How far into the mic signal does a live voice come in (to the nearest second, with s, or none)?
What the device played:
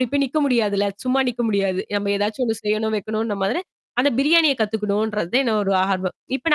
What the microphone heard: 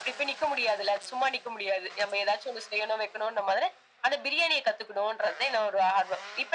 none